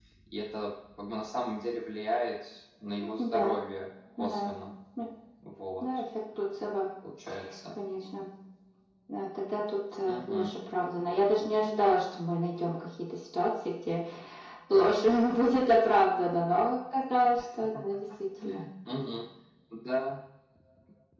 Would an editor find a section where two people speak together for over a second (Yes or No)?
No